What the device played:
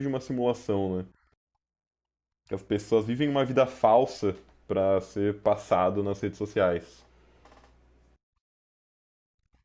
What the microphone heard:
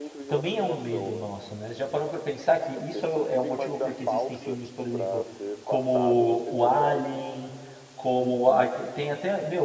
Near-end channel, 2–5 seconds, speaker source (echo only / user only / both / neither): both